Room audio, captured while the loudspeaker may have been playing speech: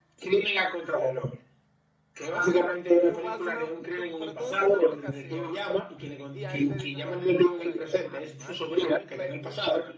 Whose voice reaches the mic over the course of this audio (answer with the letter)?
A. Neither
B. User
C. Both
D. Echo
C